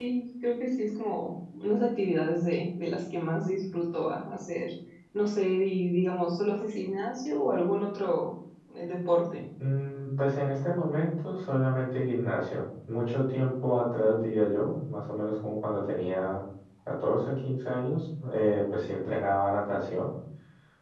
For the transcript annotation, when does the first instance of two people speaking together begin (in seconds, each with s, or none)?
none